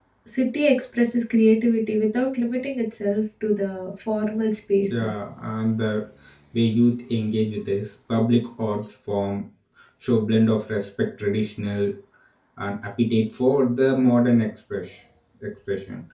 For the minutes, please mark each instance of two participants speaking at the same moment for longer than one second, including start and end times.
none

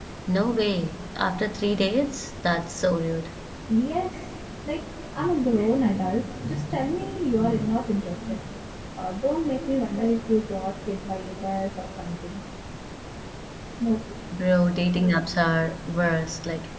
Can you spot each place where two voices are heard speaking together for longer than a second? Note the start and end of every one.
none

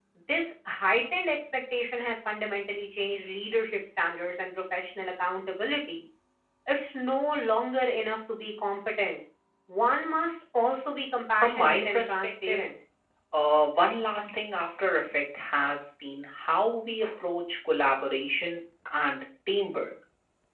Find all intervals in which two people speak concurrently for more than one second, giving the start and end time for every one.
11.4-12.6

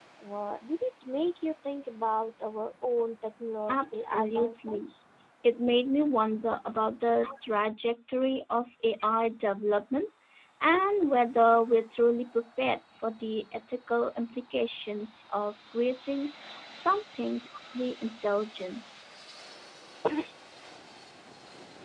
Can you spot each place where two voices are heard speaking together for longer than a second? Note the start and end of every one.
3.7-4.9

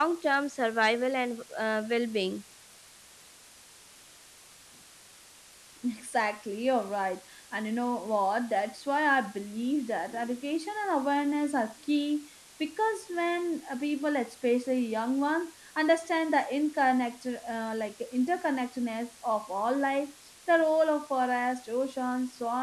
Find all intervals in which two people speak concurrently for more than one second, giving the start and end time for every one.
none

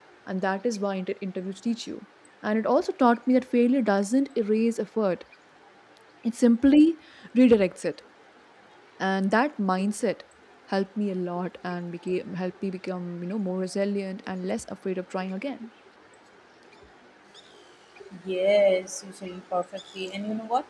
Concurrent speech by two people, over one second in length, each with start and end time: none

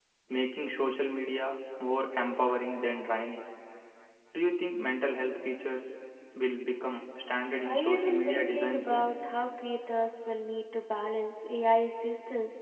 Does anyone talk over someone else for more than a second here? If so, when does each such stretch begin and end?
7.6-9.1

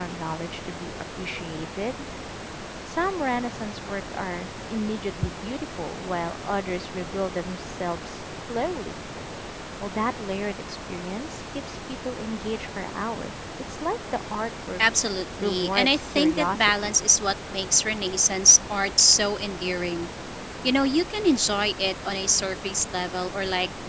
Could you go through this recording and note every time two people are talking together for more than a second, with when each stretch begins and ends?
15.4-16.9

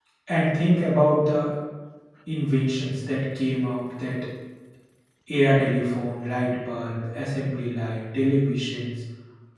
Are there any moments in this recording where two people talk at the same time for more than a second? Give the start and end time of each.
none

